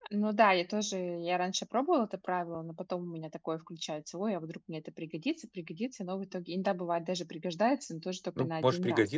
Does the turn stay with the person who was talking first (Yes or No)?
No